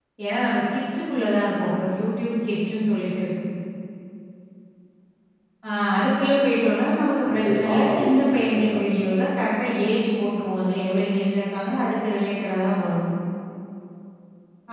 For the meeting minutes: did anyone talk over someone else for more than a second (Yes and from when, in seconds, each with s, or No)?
Yes, from 7.2 s